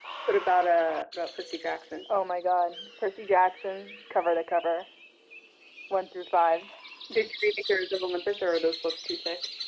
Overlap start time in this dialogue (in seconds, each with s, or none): none